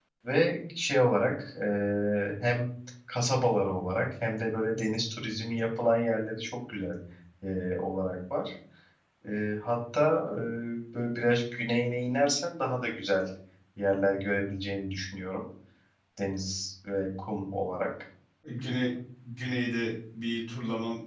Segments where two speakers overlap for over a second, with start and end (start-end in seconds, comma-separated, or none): none